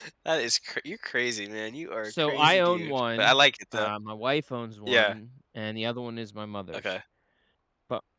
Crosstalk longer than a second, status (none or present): present